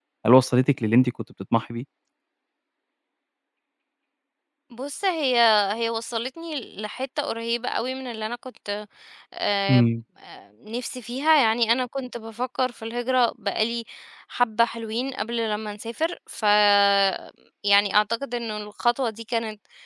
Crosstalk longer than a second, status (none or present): none